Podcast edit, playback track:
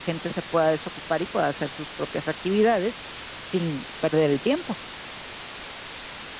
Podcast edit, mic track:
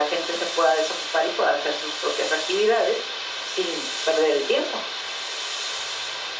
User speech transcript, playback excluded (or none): none